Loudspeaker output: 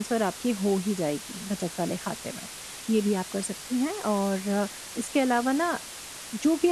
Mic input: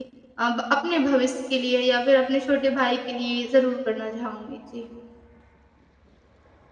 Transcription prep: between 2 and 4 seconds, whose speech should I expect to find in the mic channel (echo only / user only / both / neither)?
user only